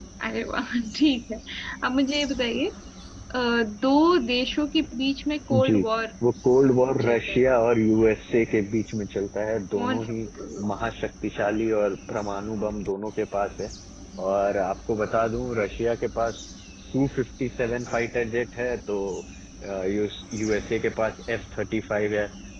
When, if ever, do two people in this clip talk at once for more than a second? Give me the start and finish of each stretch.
none

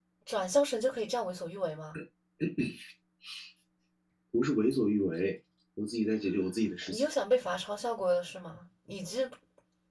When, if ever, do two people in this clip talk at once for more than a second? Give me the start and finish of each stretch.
none

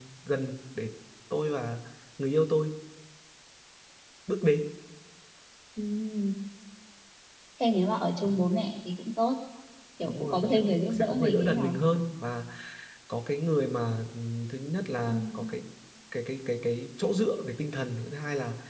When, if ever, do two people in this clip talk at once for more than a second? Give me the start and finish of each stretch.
10.1-11.7

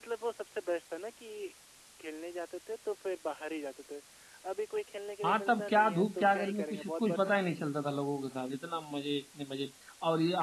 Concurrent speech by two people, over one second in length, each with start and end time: 5.2-7.2

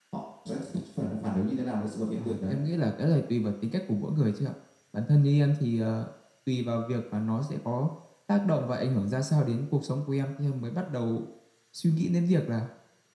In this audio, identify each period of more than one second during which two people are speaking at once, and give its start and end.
none

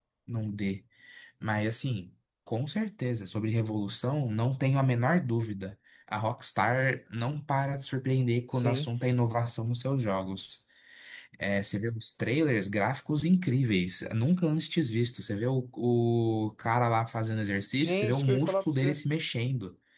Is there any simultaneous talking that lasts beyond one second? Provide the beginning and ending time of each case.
17.8-19.0

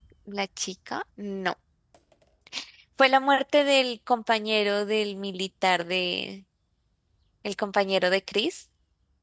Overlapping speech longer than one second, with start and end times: none

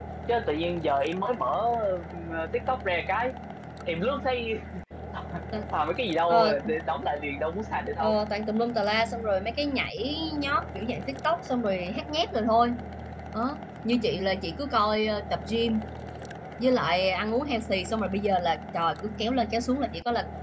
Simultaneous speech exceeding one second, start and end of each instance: none

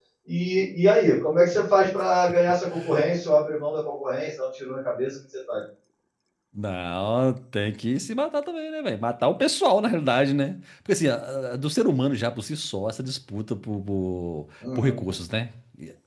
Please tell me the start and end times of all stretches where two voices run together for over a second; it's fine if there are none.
none

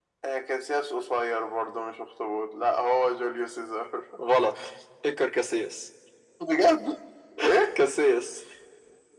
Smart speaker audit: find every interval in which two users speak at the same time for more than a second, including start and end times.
none

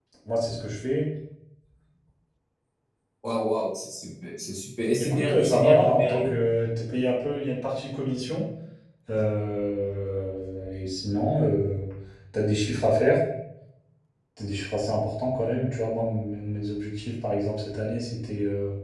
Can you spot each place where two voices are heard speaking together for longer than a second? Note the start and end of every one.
5.0-6.3

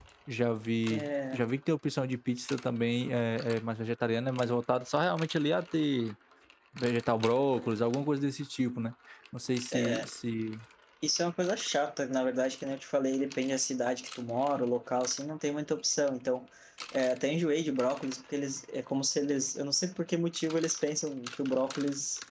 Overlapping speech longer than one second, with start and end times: none

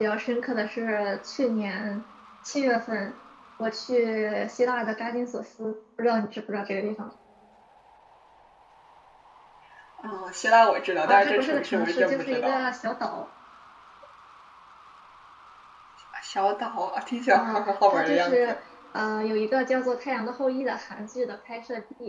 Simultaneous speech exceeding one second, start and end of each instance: 11.0-12.7, 17.3-18.6

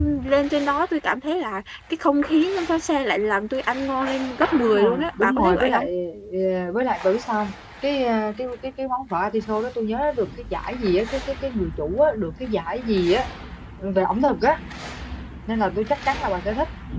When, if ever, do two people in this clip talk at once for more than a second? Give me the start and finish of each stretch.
4.6-5.9

